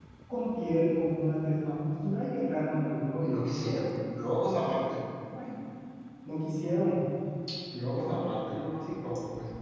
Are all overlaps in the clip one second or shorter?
Yes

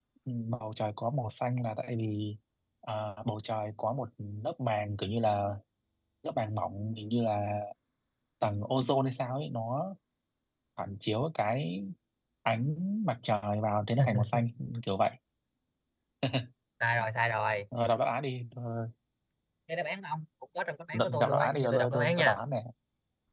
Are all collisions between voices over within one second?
No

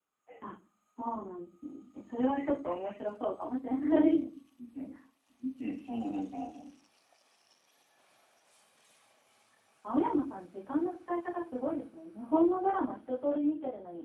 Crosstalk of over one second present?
No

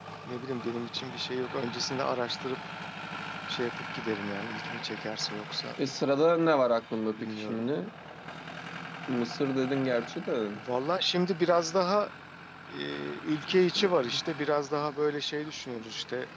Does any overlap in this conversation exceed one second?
No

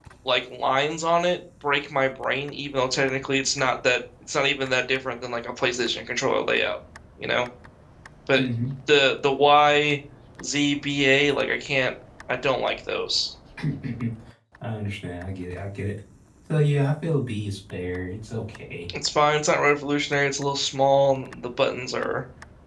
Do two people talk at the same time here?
No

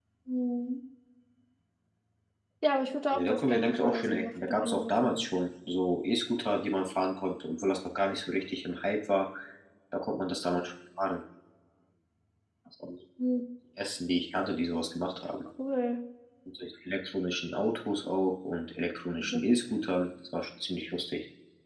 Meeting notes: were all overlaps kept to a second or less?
No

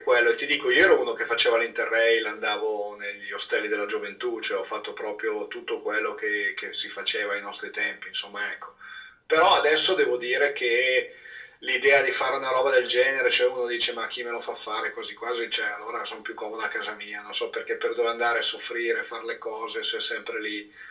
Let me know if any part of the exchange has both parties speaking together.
No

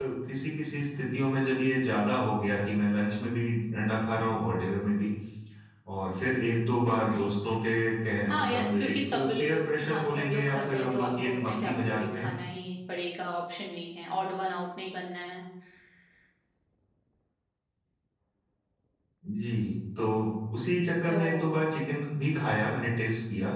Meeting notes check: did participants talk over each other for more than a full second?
Yes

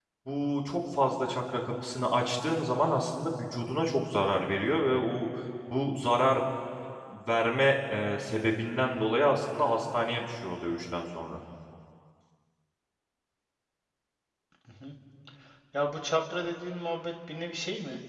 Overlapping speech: No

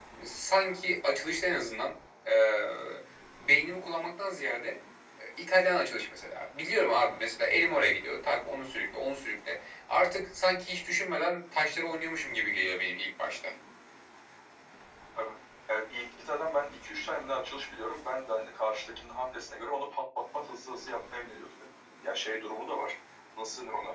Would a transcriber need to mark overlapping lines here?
No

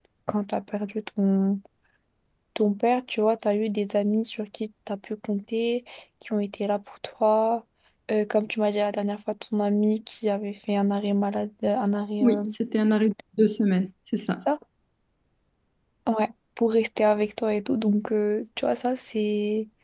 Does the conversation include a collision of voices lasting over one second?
No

